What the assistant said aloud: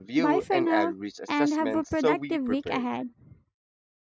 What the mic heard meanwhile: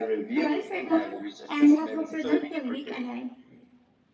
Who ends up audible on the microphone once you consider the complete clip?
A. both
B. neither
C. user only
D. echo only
D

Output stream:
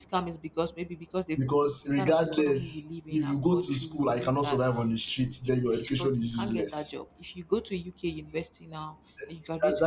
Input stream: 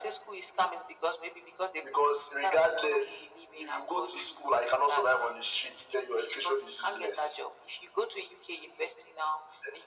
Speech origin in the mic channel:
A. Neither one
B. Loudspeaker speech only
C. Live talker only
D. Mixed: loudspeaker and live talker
B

